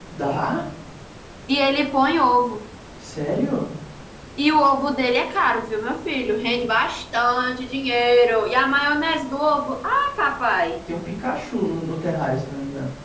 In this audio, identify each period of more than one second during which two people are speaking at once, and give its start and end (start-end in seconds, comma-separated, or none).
none